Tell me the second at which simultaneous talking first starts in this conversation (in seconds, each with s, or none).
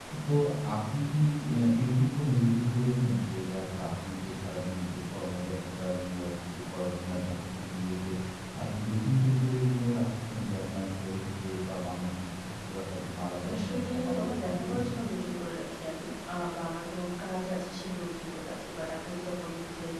13.4 s